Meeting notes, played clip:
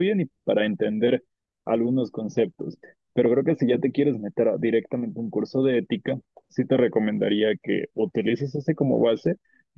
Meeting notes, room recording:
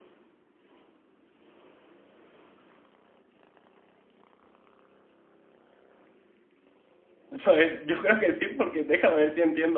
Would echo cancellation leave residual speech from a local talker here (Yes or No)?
Yes